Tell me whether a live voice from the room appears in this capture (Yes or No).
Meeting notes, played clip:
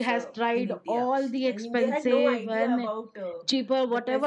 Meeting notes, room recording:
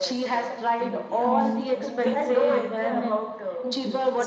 Yes